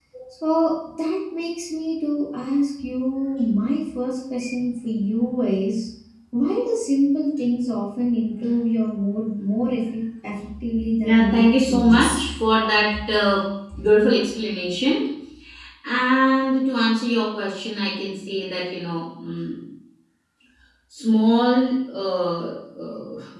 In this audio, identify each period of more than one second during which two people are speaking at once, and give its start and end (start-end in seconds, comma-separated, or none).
11.0-12.3